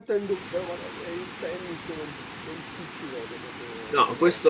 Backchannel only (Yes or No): No